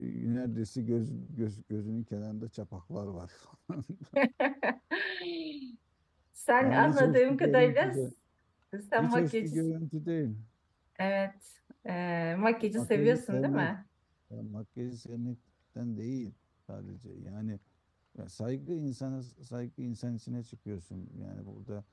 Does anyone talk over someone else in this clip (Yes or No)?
Yes